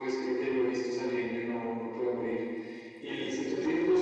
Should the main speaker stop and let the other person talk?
No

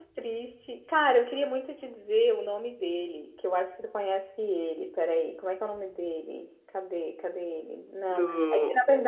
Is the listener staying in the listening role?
Yes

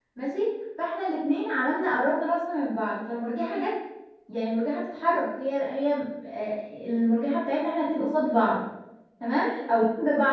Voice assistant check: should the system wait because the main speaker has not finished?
Yes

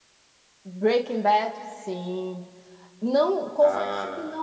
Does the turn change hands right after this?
No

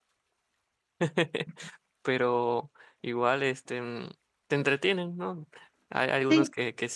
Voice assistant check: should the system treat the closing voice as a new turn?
No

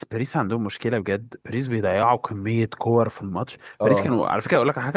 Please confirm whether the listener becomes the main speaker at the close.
No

